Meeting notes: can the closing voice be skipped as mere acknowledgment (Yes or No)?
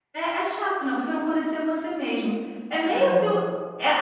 Yes